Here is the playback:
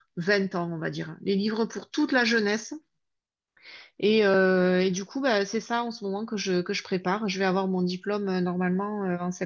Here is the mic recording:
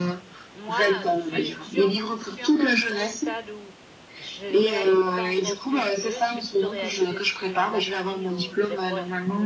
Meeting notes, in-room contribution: present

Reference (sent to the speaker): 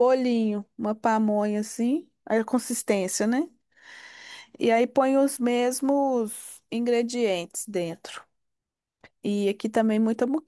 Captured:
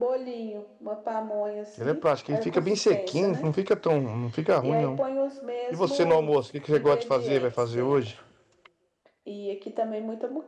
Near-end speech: present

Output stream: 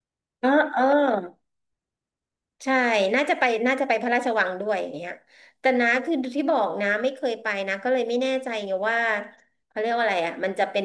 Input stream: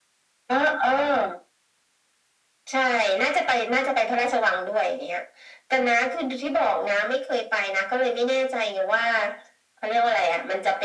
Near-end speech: none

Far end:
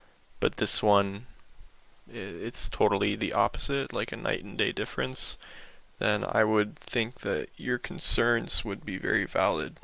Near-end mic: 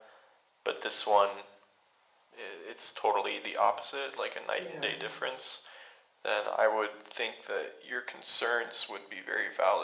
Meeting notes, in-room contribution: present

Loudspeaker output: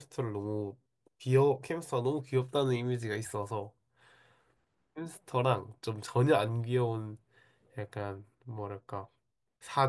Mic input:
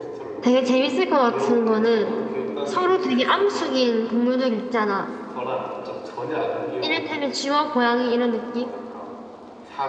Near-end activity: present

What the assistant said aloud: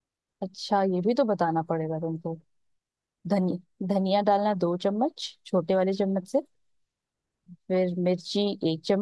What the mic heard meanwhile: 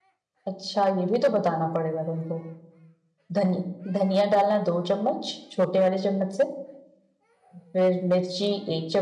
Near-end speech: none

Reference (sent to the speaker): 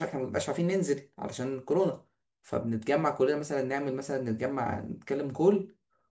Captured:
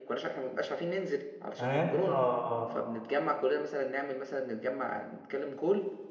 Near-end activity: present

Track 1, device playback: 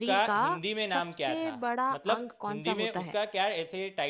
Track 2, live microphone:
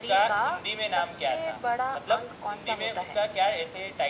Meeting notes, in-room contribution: none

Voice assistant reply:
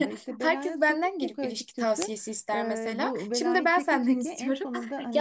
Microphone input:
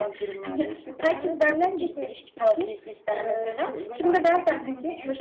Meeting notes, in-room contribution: none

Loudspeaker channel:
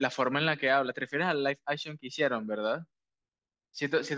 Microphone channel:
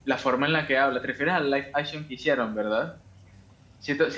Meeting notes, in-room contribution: none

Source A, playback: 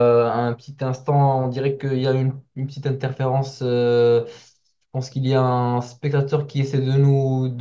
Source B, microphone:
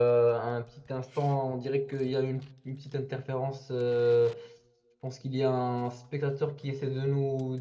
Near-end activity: none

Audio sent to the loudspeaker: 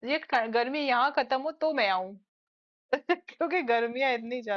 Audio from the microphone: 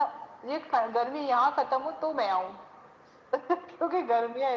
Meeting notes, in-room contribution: none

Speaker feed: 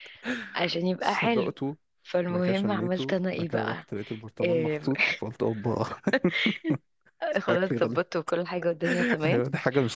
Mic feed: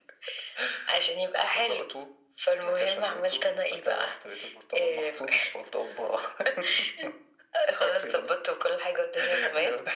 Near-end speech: none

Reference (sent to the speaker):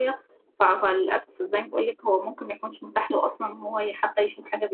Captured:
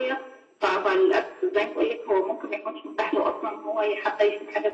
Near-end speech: none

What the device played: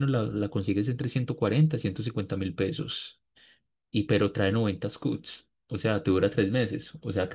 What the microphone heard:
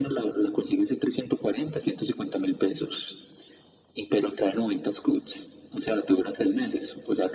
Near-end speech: none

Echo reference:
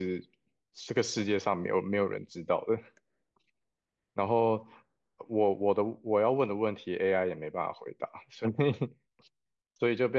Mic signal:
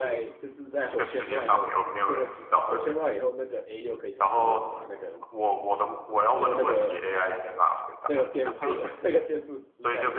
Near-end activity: present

